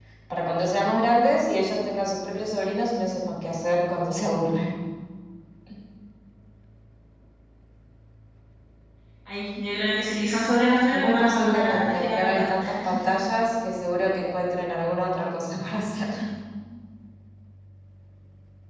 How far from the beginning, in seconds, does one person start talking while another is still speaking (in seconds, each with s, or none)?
10.9 s